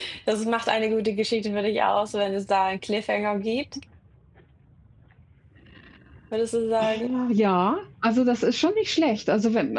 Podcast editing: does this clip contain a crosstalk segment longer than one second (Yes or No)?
No